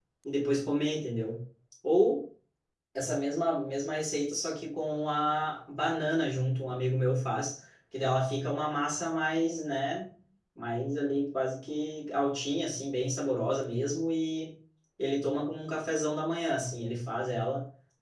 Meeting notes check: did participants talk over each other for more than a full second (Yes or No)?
No